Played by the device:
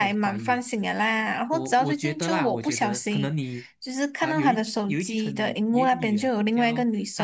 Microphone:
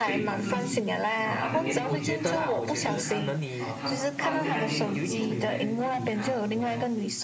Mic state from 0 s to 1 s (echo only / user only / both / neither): both